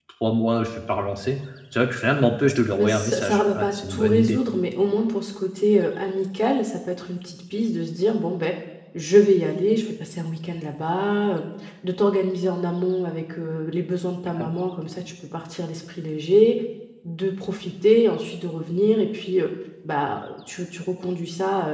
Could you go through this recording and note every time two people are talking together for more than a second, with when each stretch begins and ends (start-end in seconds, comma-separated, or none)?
2.8-4.4